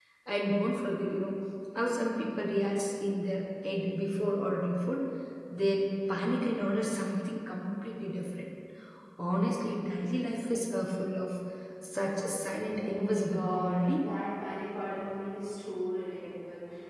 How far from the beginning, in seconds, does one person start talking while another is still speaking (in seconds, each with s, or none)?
12.8 s